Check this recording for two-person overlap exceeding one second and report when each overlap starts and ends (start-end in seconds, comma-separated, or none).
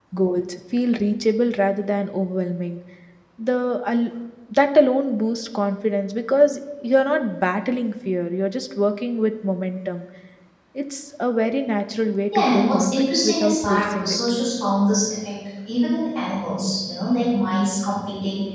12.3-14.2